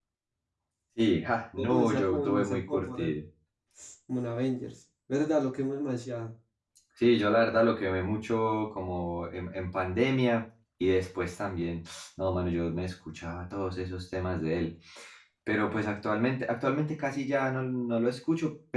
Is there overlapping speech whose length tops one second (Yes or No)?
Yes